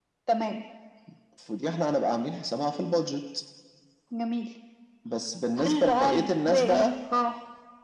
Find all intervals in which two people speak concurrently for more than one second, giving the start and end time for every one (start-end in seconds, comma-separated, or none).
5.6-6.9